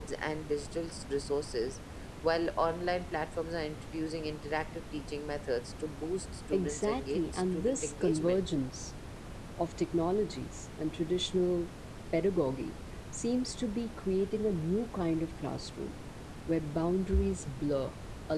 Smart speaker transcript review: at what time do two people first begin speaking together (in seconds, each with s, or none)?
6.5 s